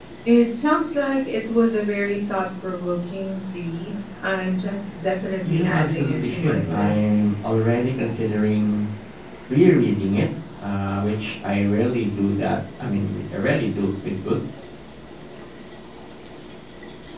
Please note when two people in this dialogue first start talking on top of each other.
5.4 s

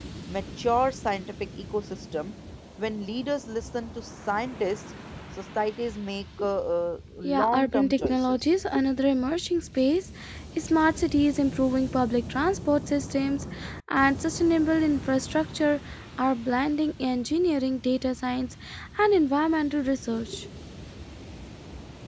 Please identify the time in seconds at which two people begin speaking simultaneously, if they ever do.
7.2 s

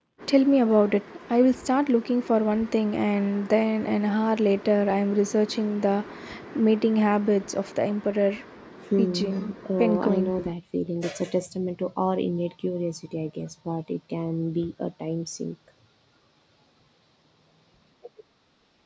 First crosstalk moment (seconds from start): 9.0 s

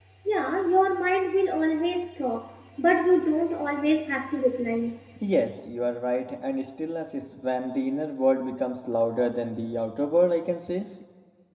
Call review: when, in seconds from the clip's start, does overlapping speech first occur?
none

